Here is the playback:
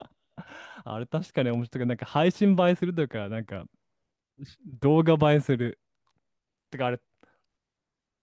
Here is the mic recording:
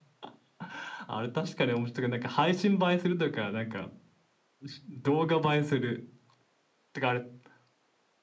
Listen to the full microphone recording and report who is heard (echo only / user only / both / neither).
echo only